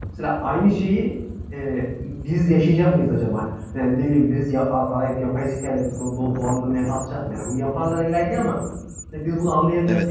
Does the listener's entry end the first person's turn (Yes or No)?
Yes